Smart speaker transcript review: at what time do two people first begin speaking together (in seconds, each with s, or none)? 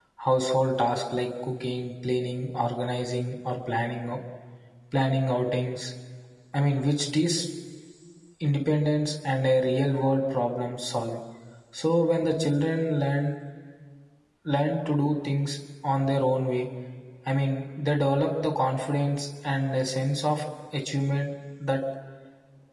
none